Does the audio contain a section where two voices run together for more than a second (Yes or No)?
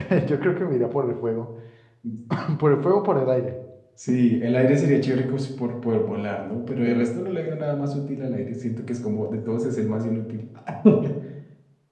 No